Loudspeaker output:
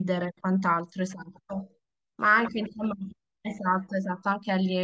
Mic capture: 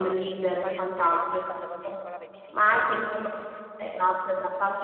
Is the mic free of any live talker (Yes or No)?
No